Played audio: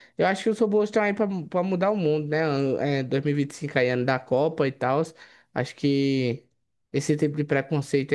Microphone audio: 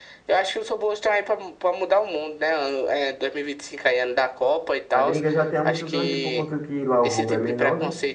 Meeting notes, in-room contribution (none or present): present